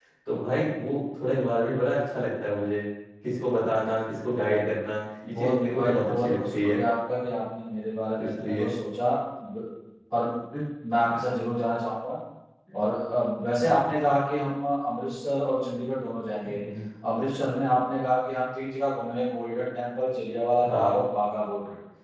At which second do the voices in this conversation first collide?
5.3 s

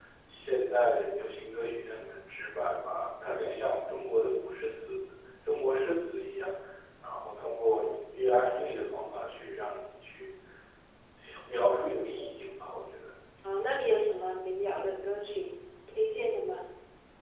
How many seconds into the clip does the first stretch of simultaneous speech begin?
none

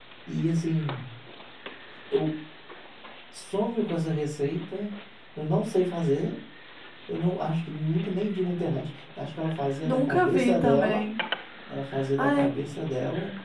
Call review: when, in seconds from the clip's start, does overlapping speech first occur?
9.8 s

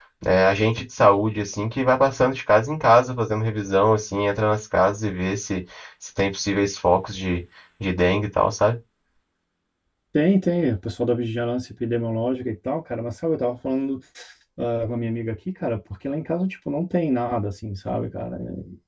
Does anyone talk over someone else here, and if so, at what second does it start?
none

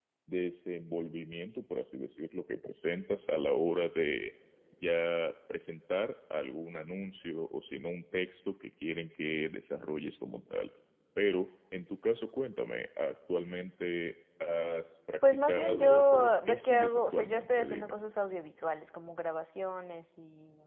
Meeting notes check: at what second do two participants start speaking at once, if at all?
15.4 s

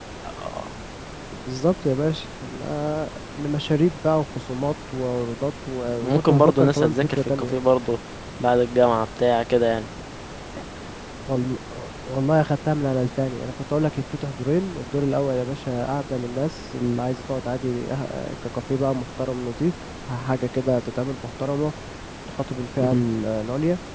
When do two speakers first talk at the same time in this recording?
6.0 s

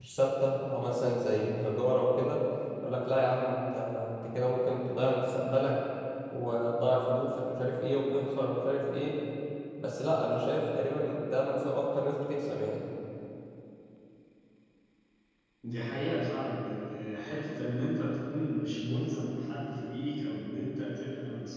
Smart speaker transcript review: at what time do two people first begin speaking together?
none

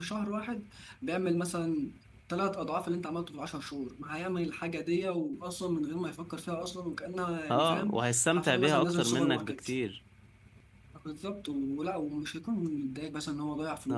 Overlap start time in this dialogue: 7.5 s

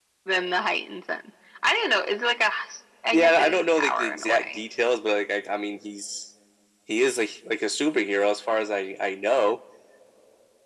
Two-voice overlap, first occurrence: 3.1 s

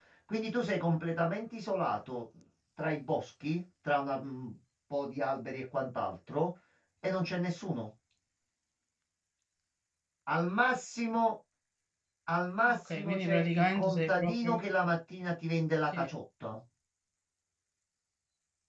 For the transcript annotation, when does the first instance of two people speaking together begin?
12.6 s

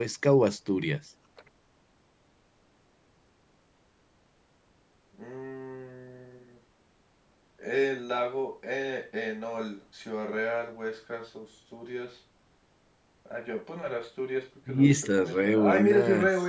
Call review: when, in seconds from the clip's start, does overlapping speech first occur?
14.7 s

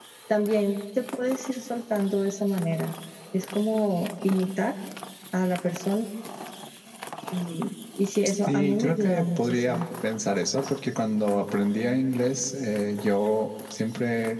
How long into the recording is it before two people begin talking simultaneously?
8.5 s

